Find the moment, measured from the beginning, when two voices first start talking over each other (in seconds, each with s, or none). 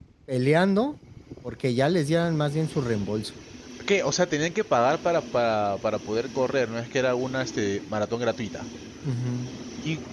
none